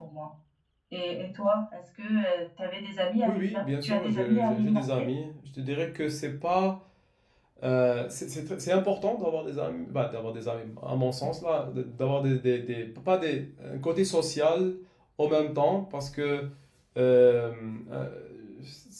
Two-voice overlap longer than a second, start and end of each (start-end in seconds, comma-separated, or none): 3.2-5.1